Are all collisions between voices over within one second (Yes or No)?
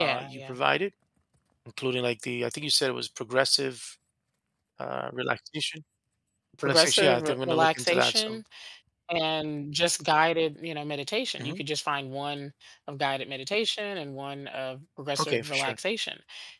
No